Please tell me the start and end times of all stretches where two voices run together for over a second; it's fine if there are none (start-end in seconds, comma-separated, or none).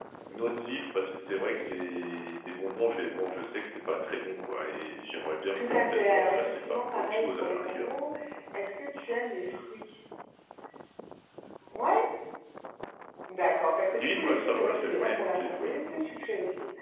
5.5-7.9, 13.9-15.8